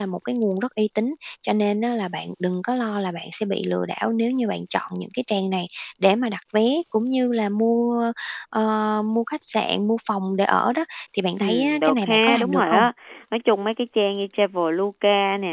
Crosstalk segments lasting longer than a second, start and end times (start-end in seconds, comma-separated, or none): 11.4-12.8